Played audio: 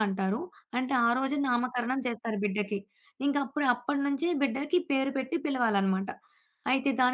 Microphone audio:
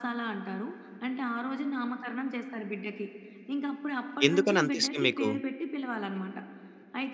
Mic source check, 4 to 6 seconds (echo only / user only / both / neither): both